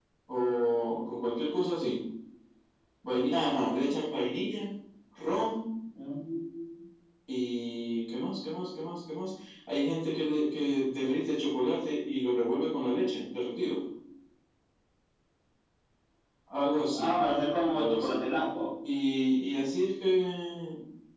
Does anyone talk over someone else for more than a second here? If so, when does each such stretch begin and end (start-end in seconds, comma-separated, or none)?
none